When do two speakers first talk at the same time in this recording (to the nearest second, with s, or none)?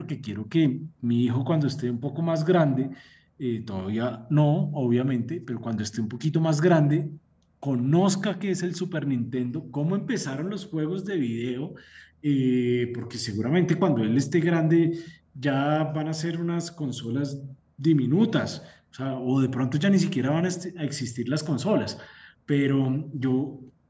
none